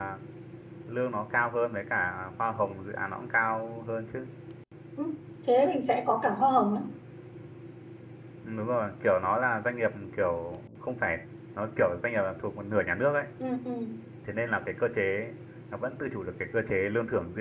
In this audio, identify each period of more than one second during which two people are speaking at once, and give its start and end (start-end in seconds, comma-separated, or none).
none